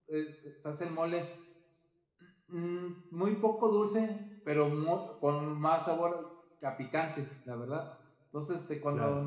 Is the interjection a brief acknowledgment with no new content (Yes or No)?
Yes